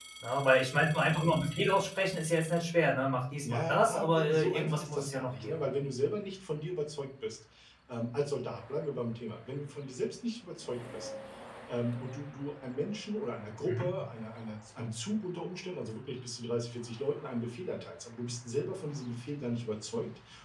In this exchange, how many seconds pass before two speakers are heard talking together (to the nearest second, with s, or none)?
3 s